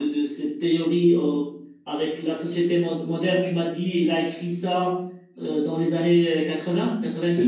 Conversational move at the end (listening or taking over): taking over